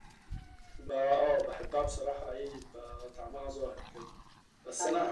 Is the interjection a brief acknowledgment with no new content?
Yes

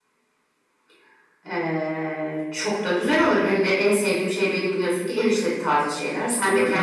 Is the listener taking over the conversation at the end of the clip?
Yes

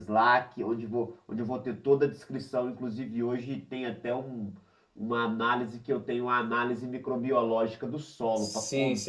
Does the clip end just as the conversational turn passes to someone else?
No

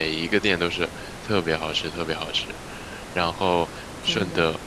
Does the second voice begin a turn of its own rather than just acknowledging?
No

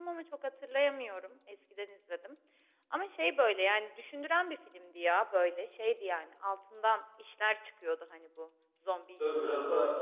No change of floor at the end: No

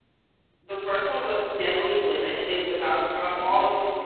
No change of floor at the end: Yes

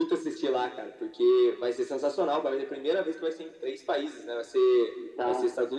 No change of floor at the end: Yes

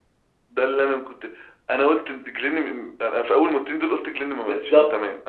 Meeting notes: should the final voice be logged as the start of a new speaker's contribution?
Yes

